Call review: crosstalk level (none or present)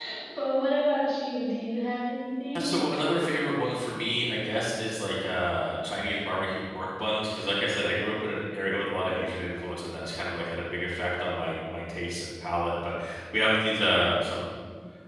none